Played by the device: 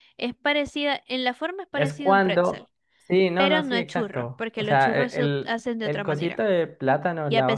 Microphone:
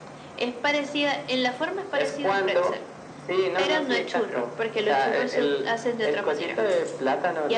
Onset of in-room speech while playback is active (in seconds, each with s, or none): none